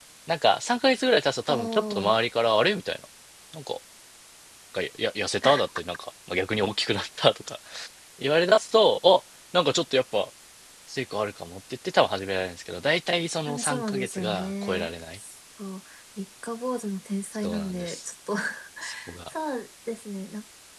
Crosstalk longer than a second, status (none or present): present